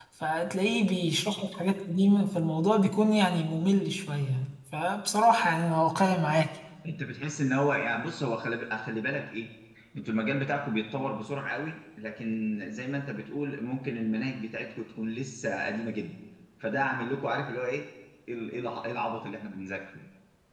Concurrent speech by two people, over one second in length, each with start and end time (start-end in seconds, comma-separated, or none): none